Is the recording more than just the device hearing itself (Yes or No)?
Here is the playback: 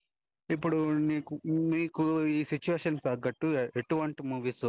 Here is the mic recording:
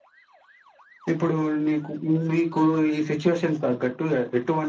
No